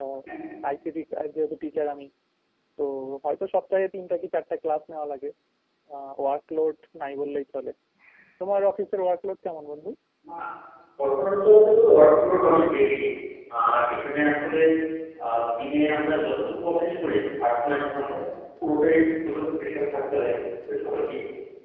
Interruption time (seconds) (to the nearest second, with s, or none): none